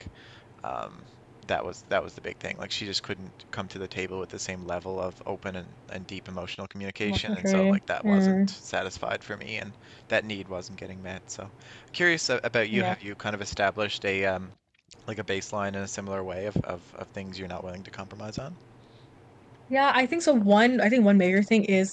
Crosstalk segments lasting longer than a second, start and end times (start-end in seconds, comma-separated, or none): 7.0-8.5